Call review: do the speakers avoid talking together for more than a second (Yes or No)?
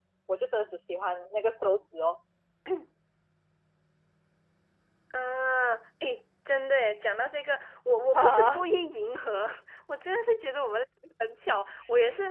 Yes